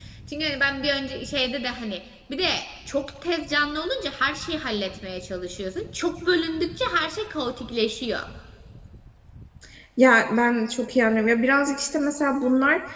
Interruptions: none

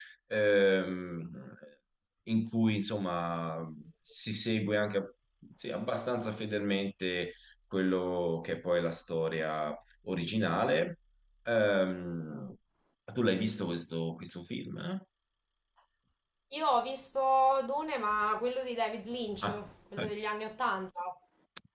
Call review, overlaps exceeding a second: none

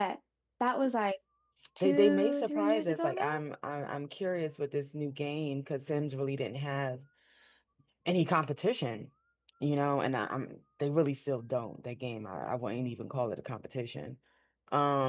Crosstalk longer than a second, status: present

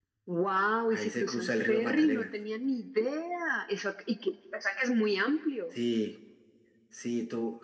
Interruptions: present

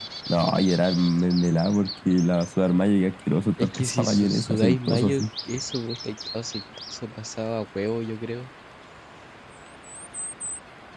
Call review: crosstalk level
present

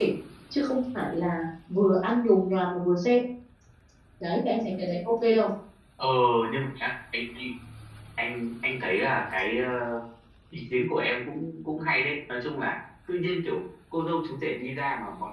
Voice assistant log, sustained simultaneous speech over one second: none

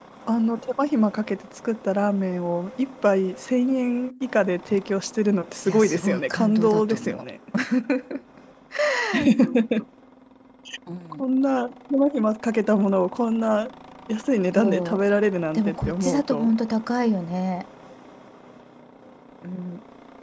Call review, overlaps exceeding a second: present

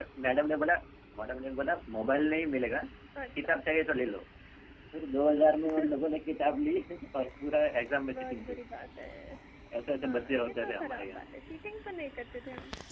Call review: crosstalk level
present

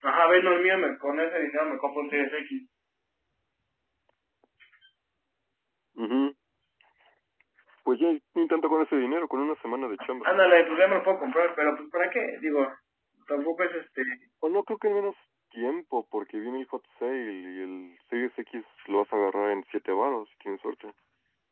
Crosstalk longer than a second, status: none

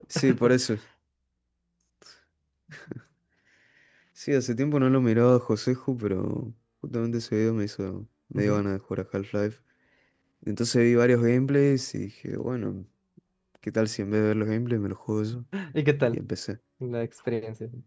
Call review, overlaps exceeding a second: none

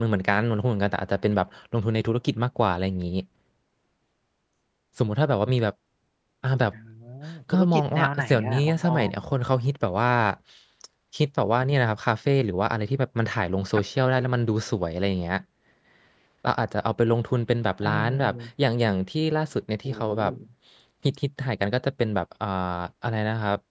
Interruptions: present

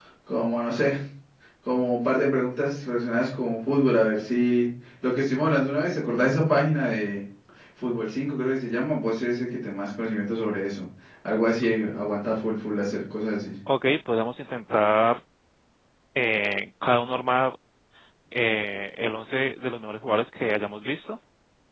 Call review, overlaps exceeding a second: none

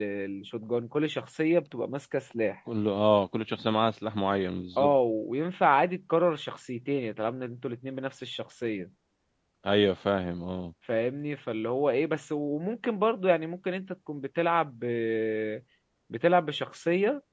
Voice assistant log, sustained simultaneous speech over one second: none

